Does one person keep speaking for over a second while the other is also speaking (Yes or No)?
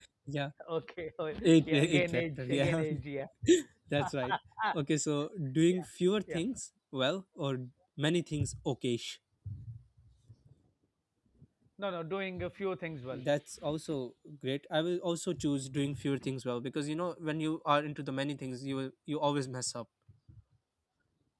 Yes